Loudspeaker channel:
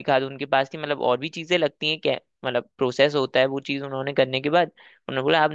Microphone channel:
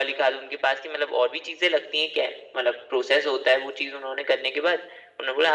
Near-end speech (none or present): none